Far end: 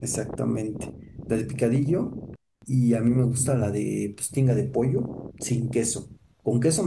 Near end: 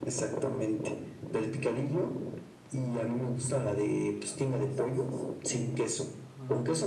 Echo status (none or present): present